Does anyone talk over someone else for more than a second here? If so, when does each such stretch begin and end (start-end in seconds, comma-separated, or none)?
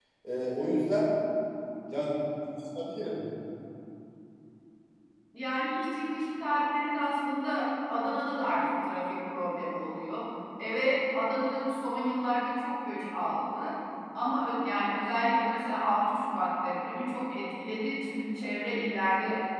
none